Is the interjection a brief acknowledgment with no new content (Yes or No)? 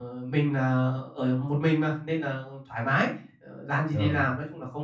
Yes